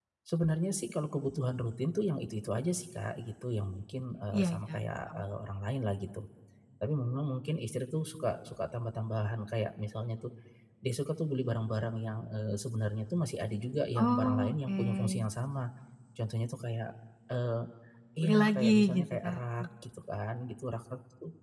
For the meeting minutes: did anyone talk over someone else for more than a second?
Yes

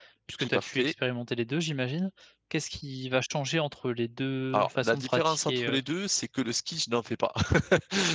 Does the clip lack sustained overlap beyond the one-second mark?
No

